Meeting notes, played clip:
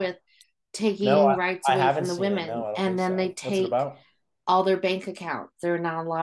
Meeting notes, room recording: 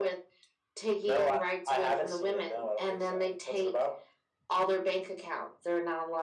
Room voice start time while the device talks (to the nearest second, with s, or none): none